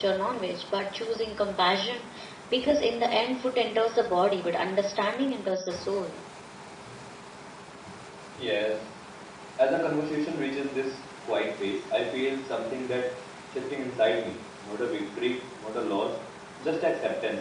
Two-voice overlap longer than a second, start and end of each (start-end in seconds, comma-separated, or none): none